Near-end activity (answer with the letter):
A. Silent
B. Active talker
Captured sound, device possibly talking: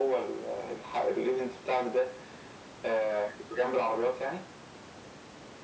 A